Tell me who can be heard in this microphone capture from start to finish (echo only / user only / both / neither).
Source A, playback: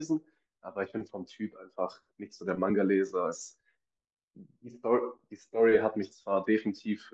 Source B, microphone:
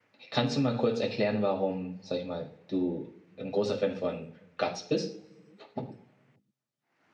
user only